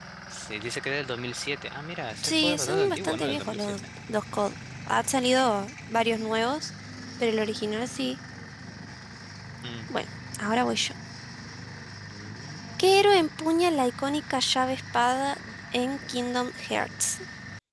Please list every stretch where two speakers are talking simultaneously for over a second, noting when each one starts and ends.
2.2-3.8

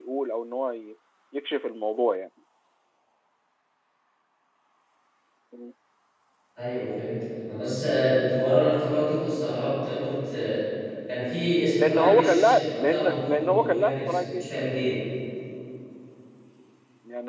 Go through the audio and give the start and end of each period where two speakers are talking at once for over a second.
11.8-14.4

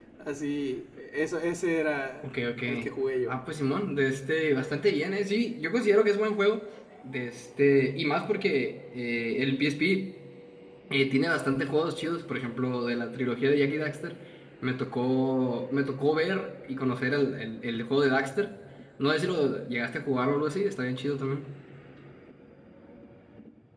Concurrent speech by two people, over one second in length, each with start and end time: none

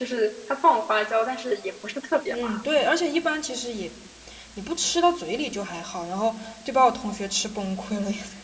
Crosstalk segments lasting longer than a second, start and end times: none

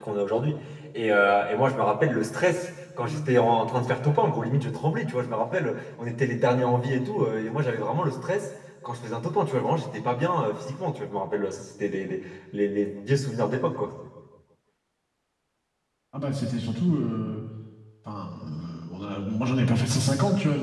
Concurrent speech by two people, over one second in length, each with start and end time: none

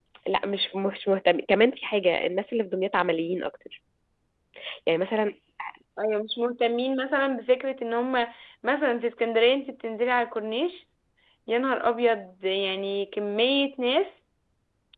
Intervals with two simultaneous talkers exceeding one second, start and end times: none

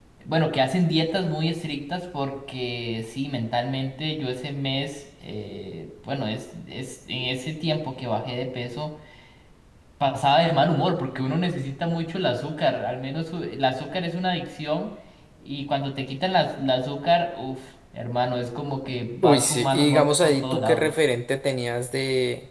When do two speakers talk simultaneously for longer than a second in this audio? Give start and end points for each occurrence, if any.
19.2-20.9

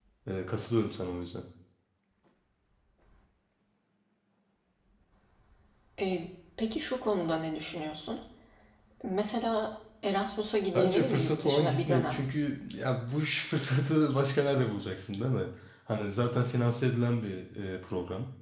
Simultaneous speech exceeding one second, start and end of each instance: 10.7-12.2

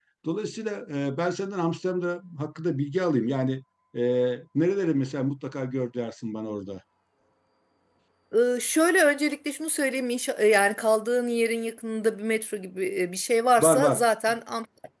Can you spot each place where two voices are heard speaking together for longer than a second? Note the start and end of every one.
none

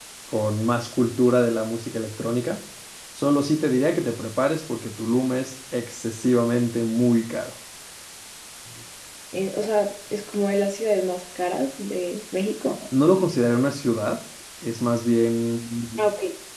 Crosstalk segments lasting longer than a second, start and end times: none

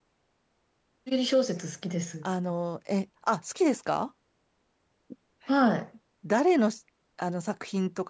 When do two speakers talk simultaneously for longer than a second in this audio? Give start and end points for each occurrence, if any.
none

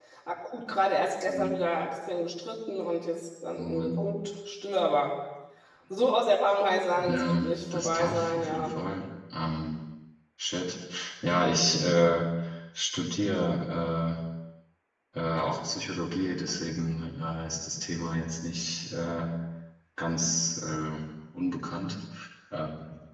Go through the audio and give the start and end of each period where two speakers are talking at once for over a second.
7.0-8.8

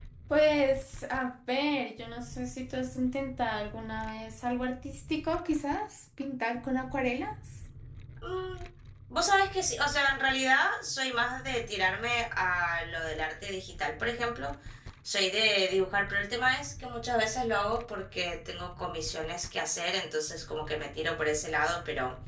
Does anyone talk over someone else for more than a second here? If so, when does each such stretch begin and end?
none

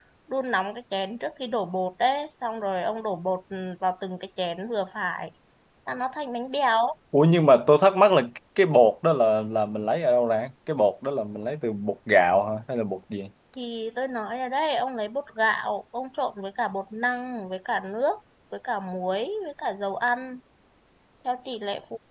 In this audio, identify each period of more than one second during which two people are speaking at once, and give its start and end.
none

